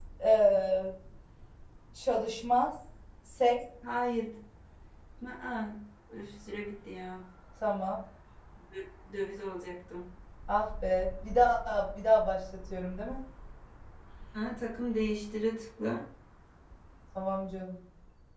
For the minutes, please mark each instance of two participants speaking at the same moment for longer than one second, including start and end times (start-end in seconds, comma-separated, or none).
none